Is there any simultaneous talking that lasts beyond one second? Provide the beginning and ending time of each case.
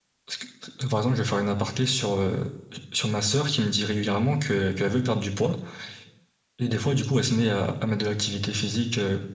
none

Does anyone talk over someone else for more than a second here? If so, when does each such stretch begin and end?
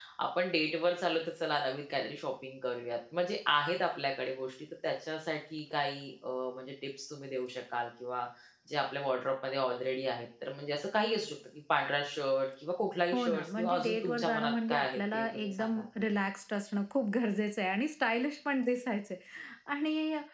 13.1-15.8

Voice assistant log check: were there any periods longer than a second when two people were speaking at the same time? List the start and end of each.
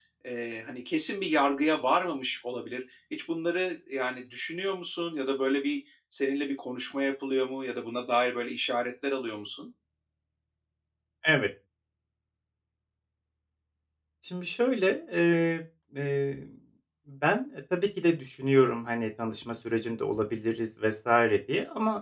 none

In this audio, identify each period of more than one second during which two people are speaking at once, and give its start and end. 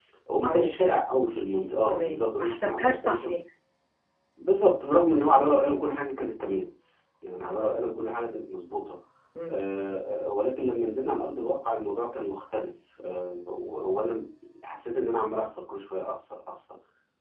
1.9-3.3

